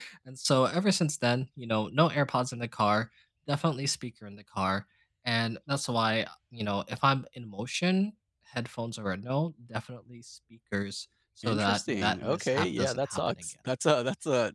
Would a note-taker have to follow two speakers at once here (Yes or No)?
Yes